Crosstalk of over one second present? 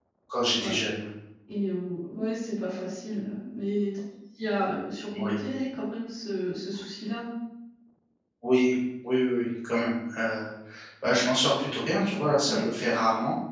No

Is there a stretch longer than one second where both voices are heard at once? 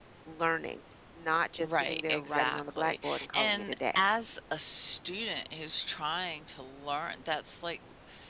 Yes, from 1.6 s

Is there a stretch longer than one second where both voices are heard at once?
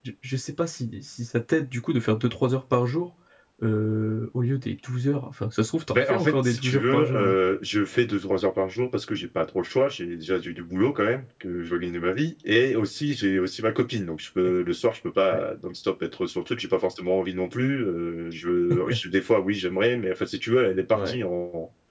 Yes, from 5.9 s

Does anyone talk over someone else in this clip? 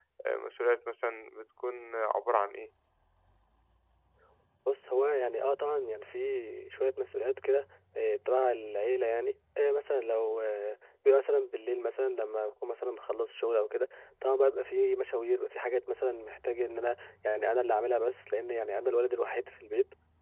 No

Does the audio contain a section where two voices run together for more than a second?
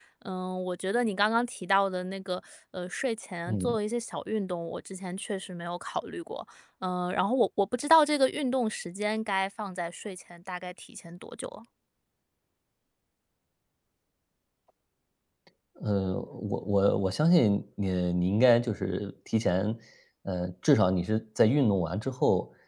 No

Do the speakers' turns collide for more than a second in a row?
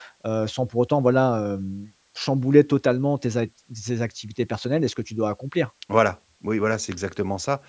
No

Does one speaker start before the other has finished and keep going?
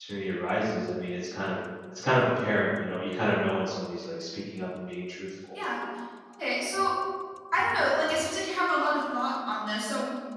No

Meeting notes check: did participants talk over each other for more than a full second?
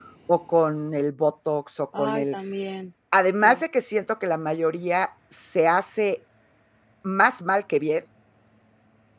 No

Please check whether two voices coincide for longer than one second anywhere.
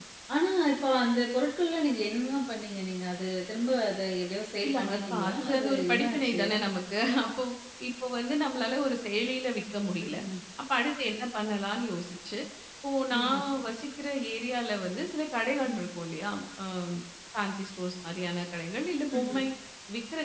Yes, from 4.6 s

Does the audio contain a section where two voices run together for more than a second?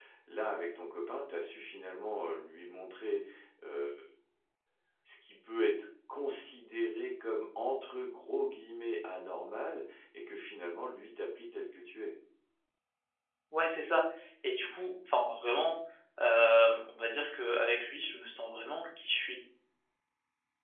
No

